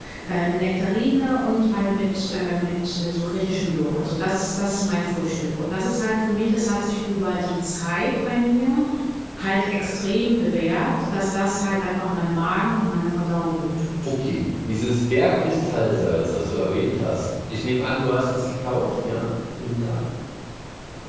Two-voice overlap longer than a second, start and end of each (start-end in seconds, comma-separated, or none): none